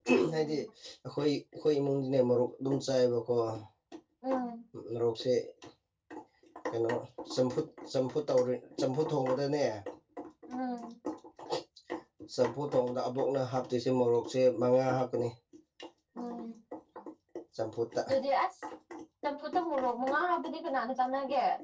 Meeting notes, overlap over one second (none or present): none